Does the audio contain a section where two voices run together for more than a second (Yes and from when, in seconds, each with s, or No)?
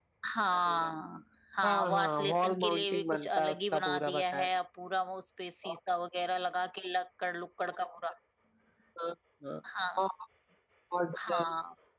Yes, from 1.6 s